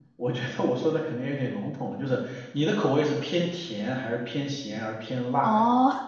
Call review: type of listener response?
taking over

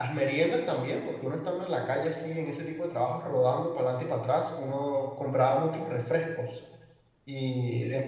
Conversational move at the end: listening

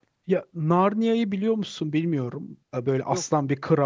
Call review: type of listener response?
listening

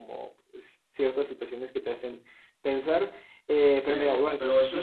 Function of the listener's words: taking over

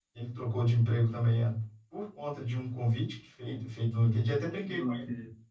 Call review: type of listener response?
listening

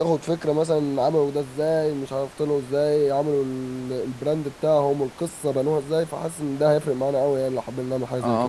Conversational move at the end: taking over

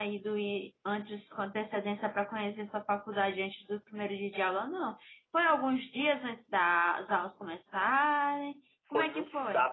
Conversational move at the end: taking over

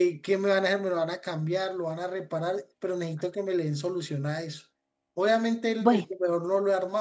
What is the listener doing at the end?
listening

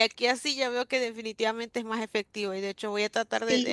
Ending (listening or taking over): listening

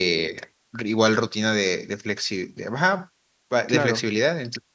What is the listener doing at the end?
listening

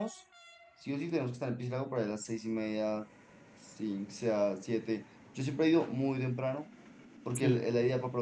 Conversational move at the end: listening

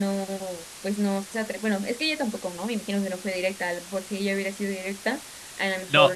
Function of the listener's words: taking over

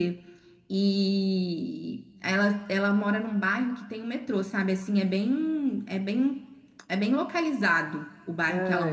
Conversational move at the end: taking over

